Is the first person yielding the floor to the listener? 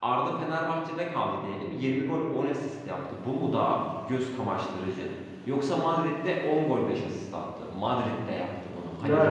Yes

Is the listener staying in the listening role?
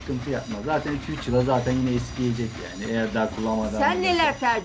No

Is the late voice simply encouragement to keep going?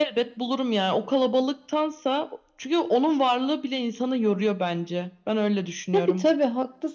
No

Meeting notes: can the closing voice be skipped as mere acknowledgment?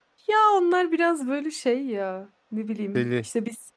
Yes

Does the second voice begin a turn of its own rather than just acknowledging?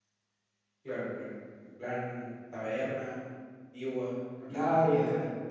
Yes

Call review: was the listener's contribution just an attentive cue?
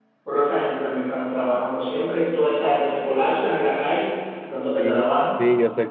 No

